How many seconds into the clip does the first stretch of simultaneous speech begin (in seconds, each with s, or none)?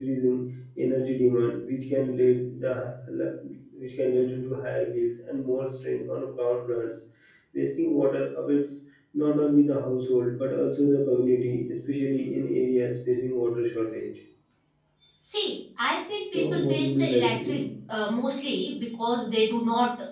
16.3 s